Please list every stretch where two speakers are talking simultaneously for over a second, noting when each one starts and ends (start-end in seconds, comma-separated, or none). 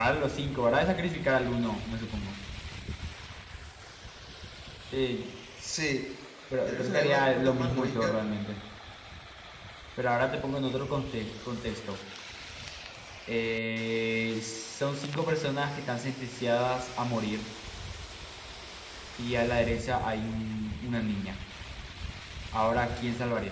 6.7-8.2